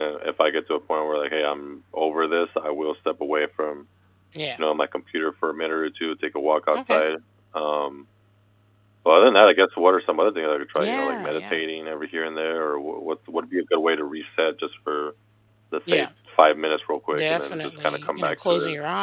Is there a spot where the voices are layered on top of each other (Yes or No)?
Yes